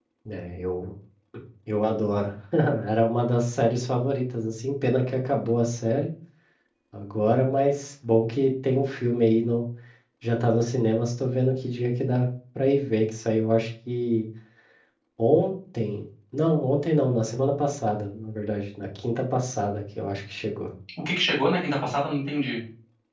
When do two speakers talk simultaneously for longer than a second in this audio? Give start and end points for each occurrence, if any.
none

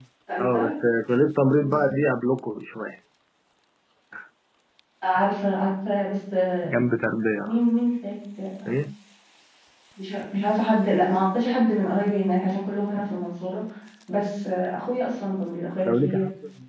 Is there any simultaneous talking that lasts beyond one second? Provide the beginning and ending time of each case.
none

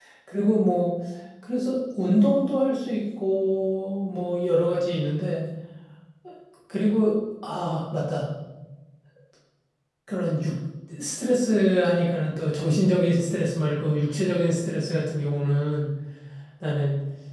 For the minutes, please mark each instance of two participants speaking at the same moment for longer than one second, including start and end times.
none

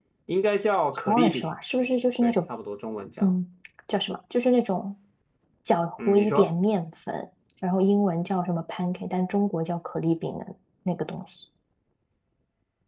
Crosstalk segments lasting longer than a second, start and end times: none

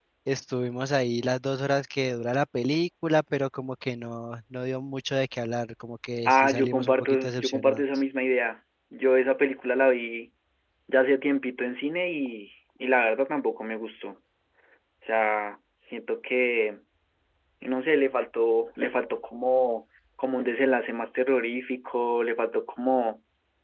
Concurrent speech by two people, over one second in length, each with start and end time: 6.3-7.8

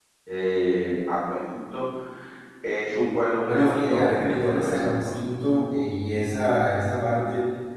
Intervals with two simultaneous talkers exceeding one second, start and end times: 3.5-5.1

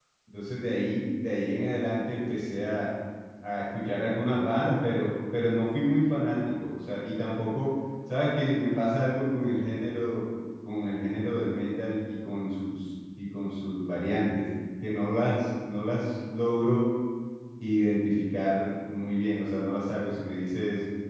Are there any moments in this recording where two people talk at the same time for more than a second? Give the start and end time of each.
none

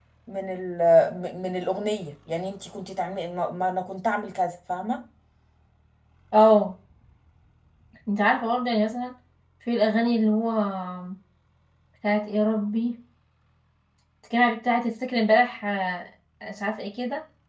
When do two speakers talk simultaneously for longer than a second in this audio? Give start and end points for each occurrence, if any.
none

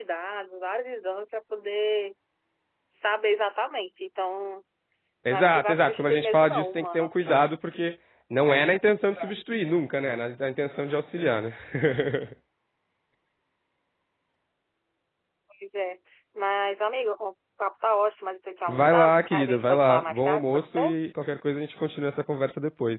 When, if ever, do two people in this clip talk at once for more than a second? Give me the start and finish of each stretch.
5.3-7.3, 18.7-20.9

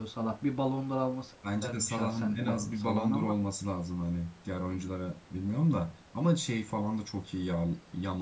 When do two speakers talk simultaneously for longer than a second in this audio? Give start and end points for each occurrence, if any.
1.6-3.3

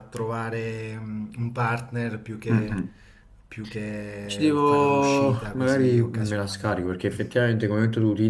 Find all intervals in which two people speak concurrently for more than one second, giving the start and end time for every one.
4.2-6.8

